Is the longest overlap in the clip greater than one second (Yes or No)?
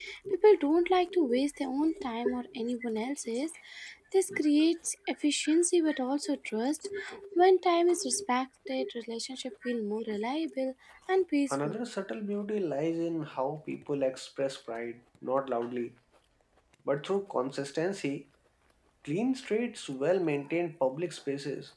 No